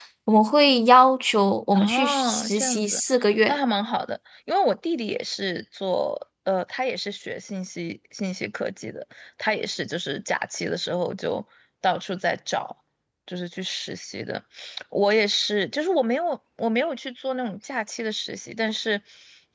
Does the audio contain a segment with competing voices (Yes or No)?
Yes